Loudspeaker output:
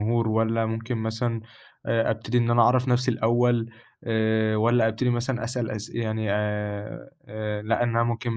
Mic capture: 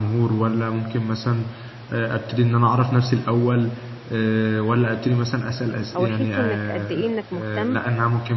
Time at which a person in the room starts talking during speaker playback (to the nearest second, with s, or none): 6 s